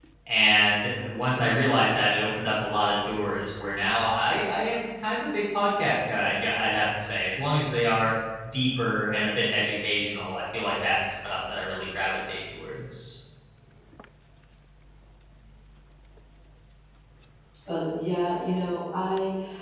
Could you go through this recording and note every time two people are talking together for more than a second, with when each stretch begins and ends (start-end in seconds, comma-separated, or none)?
none